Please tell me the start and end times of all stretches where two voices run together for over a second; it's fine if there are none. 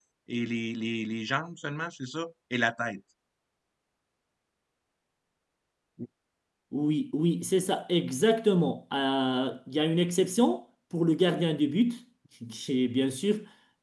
none

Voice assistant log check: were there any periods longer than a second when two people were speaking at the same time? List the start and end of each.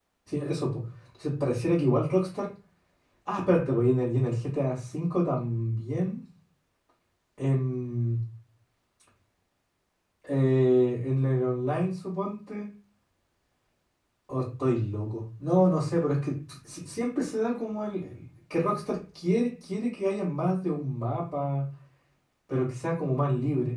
none

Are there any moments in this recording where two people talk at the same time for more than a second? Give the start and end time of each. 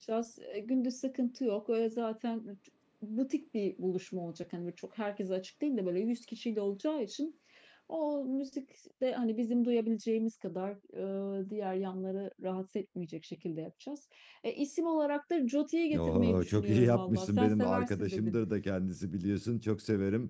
16.0-18.4

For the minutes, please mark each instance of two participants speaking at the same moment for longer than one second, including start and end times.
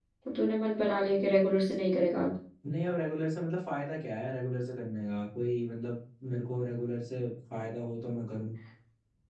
none

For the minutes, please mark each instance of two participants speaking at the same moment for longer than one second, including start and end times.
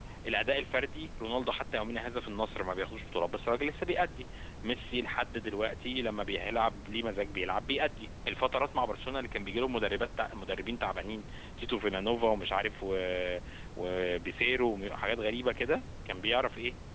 none

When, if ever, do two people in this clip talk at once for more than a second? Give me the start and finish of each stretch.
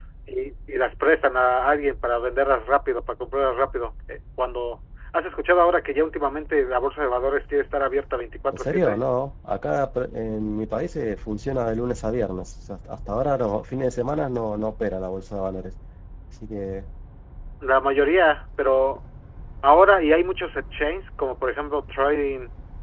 none

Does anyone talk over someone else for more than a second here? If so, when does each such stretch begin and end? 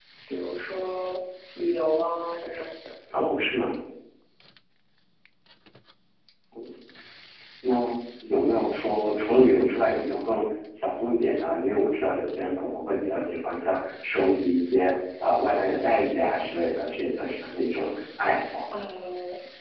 none

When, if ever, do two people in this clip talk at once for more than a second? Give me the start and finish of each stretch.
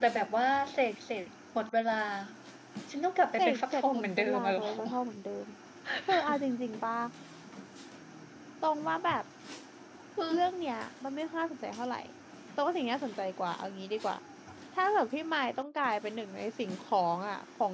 3.4-4.7

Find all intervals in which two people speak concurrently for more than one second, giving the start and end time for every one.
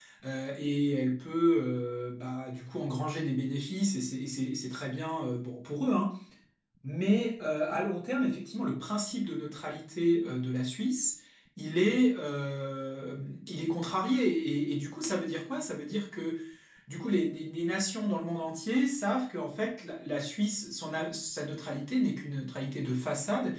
none

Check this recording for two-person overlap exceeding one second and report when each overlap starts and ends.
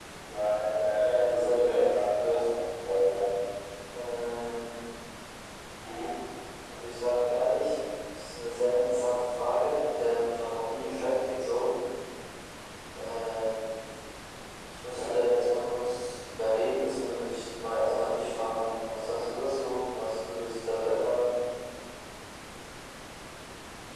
0.9-2.4

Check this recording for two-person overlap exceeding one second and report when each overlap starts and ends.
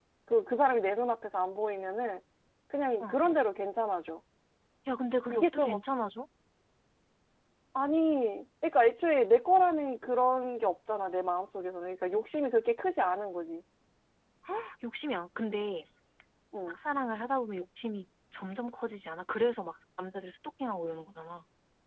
none

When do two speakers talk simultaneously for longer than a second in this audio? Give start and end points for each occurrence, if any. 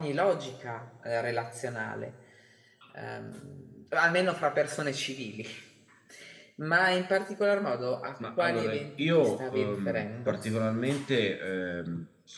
8.4-10.4

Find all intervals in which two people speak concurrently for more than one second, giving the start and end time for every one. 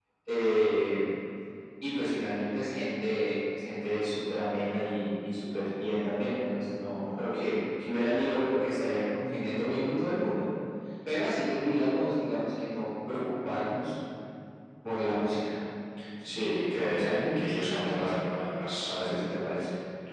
16.2-18.1

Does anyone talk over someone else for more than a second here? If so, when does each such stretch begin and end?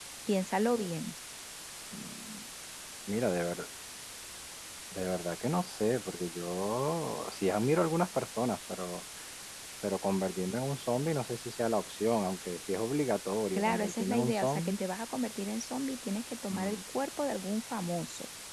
13.6-14.8

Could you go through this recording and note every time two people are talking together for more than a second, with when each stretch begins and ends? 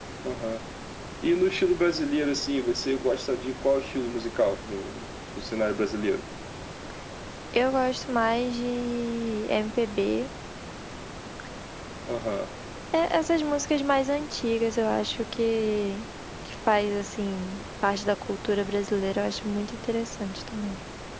none

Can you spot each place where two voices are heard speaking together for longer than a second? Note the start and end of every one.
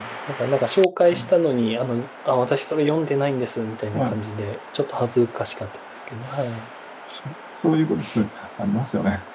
none

